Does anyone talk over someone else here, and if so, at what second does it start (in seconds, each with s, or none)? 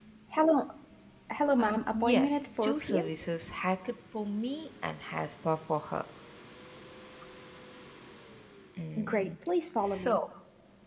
1.6 s